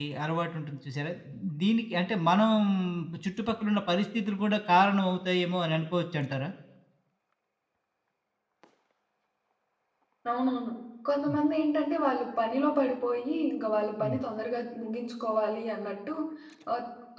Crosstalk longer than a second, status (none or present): none